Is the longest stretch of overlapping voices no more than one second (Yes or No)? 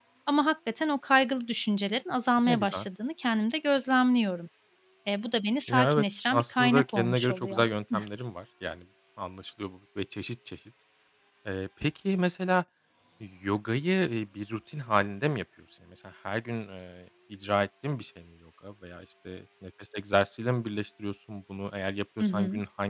No